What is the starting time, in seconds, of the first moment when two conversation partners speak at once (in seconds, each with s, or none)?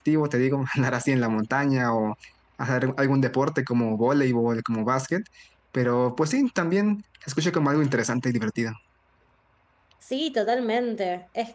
none